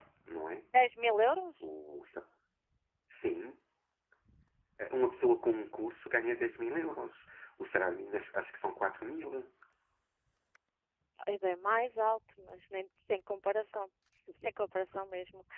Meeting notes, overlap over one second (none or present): none